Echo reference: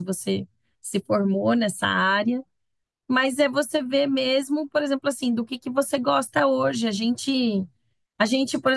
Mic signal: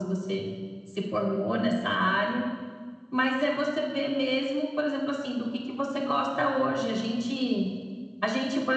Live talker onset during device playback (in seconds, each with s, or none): none